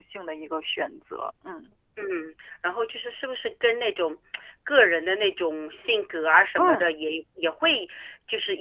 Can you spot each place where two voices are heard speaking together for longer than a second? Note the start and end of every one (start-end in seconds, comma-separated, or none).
none